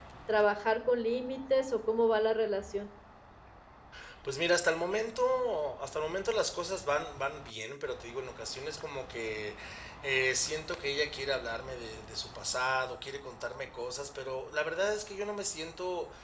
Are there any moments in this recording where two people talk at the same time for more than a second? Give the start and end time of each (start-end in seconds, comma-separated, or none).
none